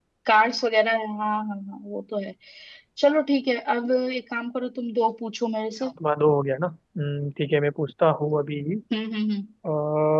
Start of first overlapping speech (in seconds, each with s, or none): none